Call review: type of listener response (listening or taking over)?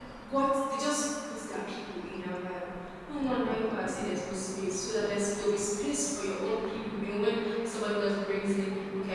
listening